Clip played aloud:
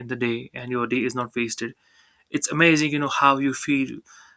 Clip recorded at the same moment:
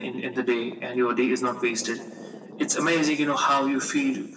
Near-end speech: none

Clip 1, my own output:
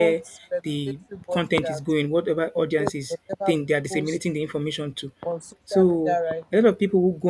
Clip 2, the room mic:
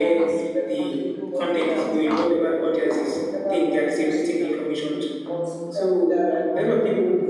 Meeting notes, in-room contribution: present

